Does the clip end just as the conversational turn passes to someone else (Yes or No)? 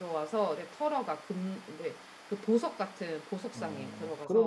Yes